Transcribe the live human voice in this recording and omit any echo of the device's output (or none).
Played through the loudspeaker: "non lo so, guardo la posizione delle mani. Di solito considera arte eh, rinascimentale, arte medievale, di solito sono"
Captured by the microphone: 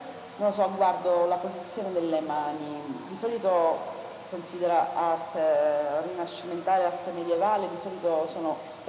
none